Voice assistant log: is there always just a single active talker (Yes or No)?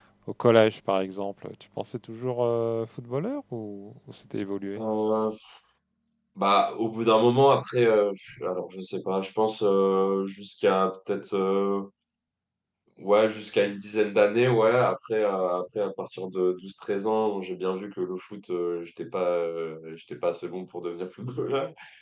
Yes